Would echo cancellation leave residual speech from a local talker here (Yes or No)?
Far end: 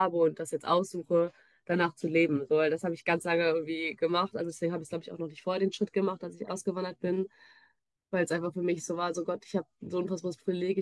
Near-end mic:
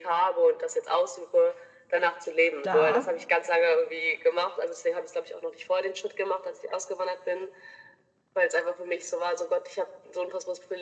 Yes